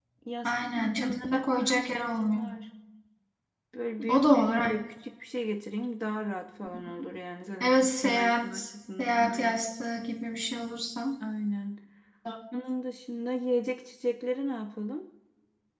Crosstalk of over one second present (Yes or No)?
Yes